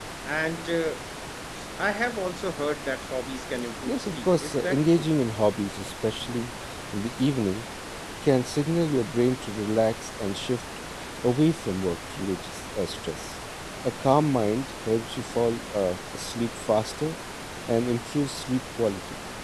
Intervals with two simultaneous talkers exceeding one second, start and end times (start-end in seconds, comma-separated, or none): 3.9-5.1